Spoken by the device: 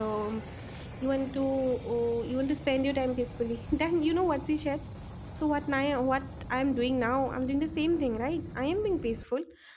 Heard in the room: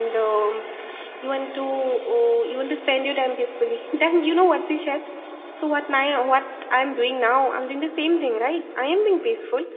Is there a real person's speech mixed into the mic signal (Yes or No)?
No